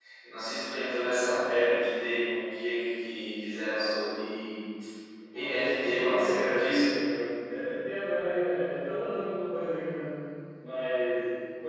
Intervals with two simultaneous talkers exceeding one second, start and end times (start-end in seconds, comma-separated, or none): 5.3-6.9